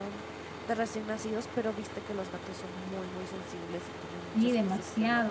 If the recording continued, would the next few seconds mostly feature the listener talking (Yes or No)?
Yes